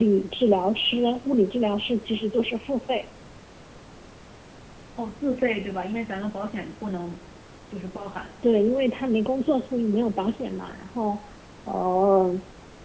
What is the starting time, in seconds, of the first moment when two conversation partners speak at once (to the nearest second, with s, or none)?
none